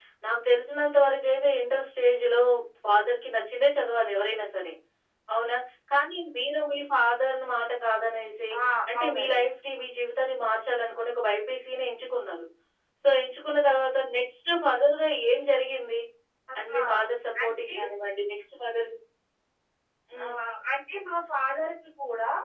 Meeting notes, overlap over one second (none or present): none